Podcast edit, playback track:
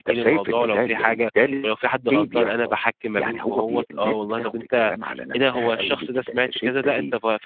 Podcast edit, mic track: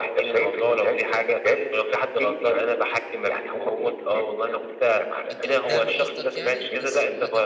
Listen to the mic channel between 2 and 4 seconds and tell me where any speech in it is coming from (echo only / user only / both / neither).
echo only